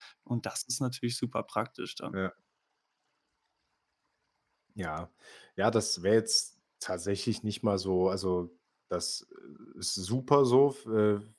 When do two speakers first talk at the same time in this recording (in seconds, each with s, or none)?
none